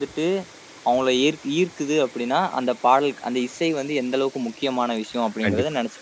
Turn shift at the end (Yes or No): Yes